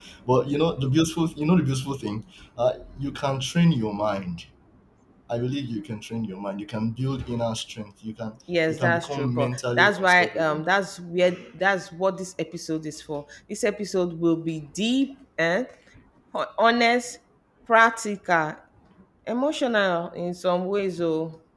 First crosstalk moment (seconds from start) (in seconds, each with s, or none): 8.5 s